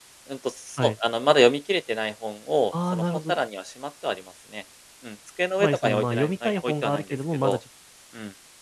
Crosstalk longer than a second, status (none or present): present